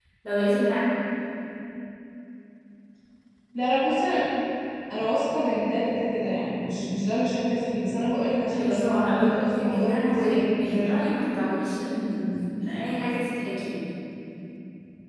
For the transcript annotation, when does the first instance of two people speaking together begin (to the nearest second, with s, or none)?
9 s